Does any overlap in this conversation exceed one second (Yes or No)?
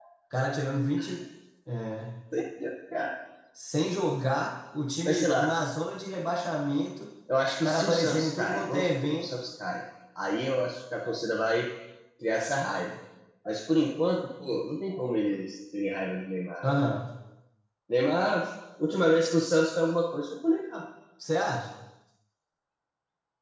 Yes